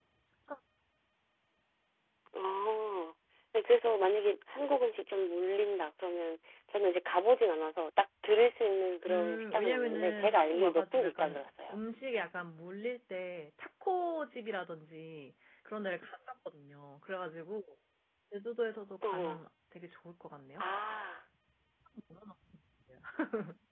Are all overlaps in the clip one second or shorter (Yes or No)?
No